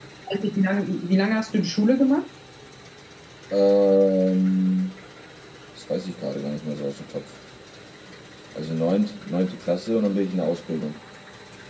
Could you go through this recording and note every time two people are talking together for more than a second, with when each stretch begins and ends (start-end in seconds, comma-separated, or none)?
none